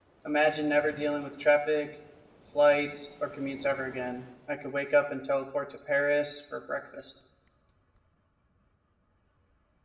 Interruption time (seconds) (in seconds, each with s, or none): none